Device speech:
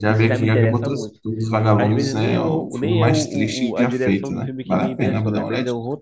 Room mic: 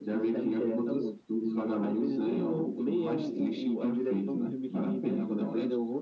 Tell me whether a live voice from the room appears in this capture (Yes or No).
No